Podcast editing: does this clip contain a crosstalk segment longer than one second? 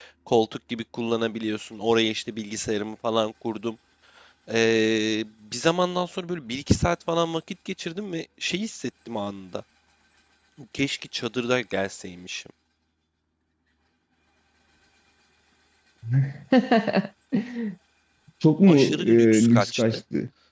Yes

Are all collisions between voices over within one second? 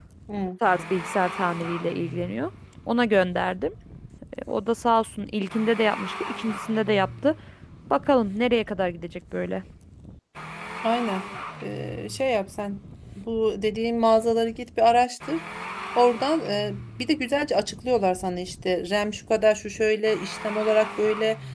Yes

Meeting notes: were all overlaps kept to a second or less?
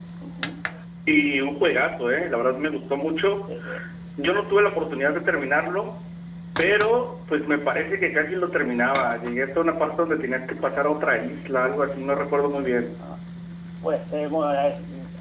Yes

